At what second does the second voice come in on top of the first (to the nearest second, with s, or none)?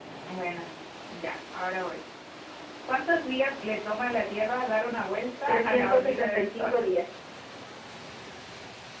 5 s